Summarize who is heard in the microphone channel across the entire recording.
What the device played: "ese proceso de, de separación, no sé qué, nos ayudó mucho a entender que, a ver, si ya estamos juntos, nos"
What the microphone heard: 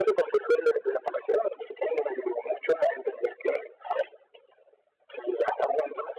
echo only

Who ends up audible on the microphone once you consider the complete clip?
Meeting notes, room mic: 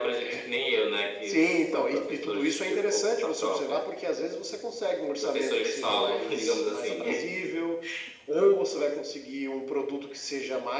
echo only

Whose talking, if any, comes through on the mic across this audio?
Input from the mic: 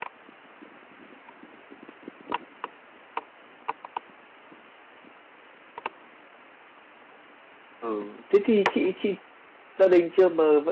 user only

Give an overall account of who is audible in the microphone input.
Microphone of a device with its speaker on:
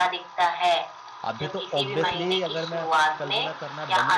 both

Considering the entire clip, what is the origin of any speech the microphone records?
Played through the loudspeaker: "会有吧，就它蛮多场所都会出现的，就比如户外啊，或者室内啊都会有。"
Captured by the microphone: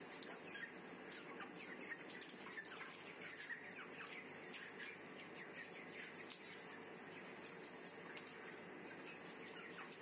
neither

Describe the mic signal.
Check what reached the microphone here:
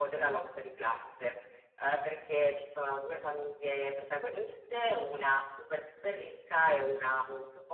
echo only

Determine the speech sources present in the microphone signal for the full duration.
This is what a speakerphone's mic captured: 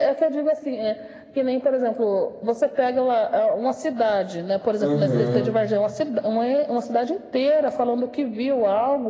both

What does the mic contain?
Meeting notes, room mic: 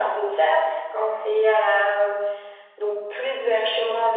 echo only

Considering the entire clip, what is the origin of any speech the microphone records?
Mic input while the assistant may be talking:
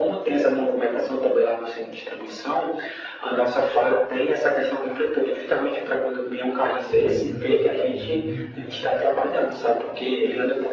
both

